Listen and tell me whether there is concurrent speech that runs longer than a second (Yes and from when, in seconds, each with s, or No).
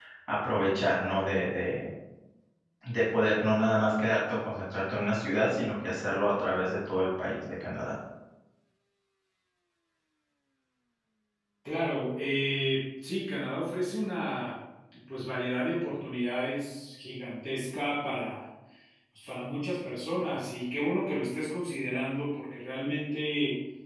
No